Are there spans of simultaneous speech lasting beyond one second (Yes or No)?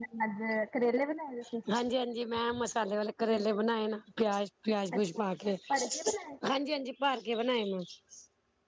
No